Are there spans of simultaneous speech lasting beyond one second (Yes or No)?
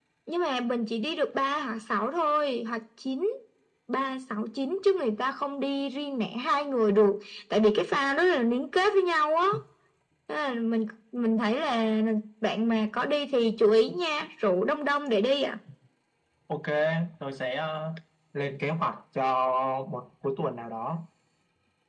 No